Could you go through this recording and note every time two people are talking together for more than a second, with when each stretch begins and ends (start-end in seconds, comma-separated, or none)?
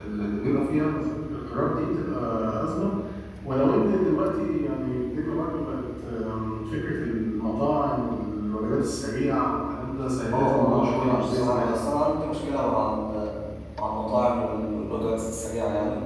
10.3-11.7